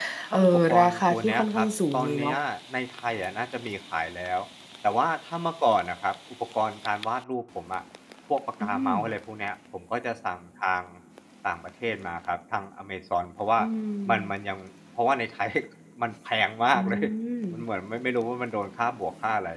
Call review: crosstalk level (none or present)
present